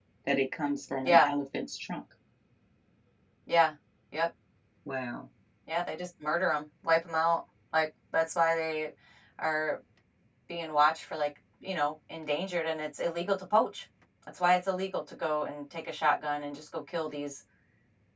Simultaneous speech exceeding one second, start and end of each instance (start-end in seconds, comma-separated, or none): none